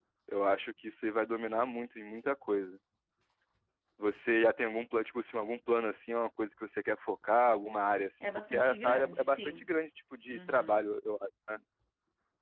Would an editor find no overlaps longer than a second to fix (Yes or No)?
No